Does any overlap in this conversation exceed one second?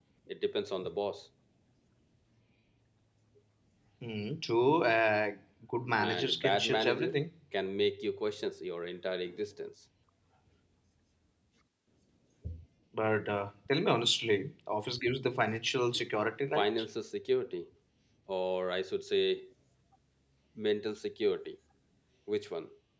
Yes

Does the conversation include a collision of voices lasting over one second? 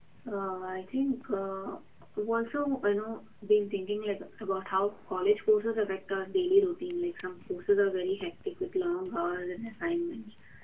No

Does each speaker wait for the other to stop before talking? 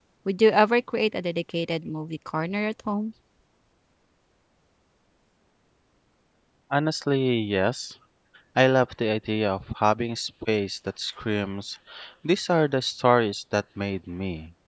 Yes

